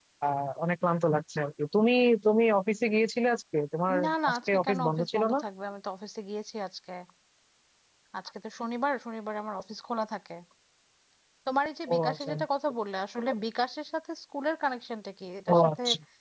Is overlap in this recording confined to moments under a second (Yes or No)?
No